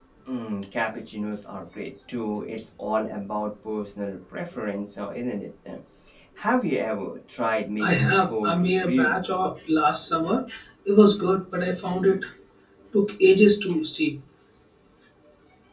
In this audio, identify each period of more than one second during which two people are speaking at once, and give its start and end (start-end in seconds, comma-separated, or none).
7.8-9.2